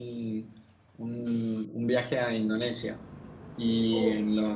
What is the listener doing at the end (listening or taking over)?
listening